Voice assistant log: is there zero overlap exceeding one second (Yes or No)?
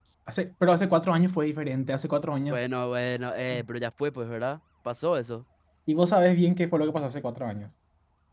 Yes